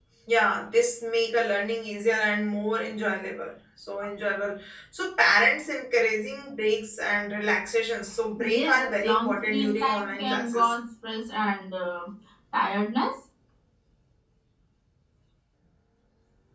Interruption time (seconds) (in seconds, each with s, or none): 8.4 s